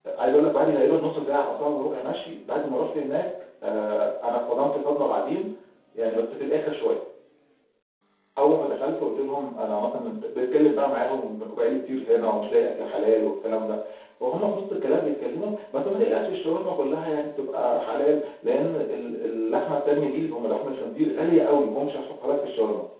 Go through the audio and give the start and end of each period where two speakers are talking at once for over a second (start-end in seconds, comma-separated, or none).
none